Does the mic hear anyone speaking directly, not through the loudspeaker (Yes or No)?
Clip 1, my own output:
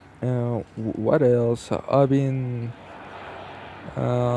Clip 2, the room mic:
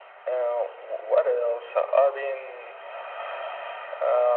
No